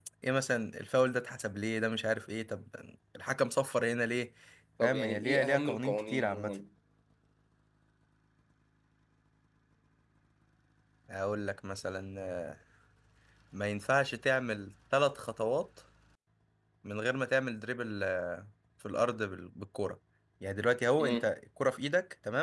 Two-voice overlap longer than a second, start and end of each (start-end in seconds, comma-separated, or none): 4.8-6.6